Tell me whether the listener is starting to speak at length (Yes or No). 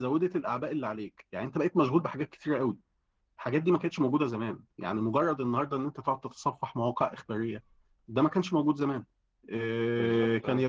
No